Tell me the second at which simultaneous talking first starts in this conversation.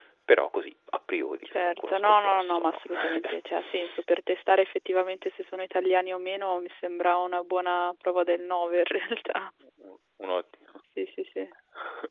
1.5 s

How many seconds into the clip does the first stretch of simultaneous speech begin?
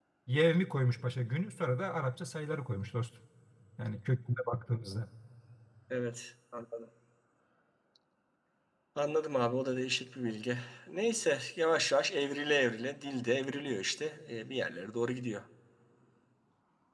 none

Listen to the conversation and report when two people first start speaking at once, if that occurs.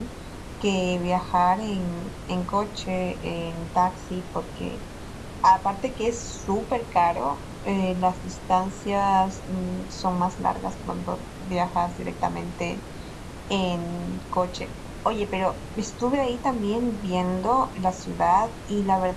none

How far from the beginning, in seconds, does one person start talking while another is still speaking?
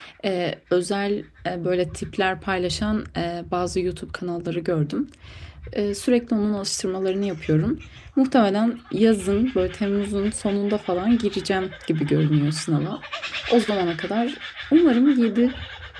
none

